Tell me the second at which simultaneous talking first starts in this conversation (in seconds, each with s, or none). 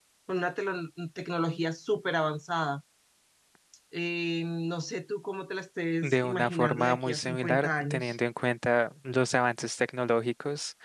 6.0 s